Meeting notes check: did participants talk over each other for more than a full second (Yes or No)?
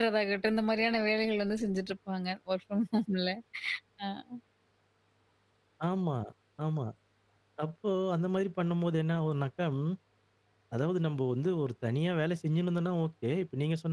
No